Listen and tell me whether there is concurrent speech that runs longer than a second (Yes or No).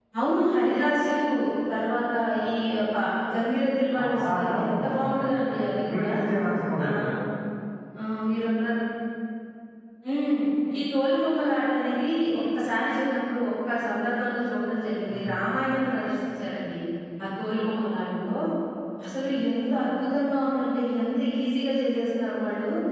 Yes